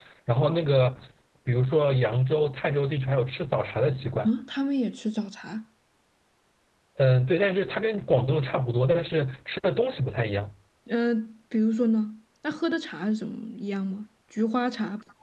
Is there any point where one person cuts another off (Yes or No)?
No